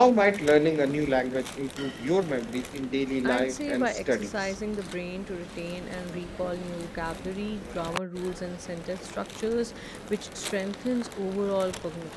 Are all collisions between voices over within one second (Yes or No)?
No